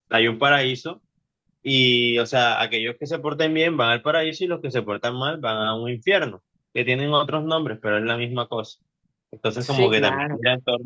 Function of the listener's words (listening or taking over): listening